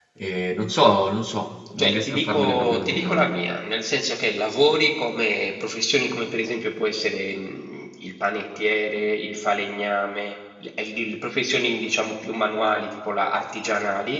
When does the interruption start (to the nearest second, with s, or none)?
2 s